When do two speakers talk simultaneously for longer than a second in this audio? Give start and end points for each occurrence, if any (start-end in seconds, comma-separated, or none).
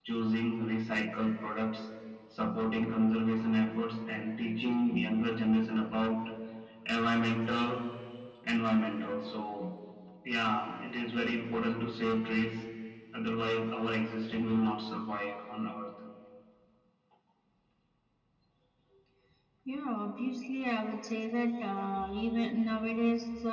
none